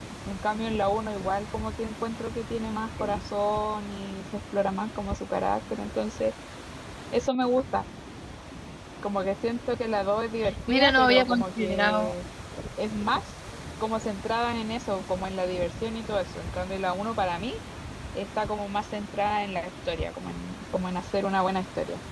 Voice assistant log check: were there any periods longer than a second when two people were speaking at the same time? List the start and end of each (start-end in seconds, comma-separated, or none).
10.7-12.1